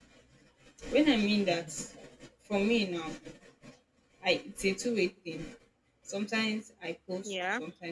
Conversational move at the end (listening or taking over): listening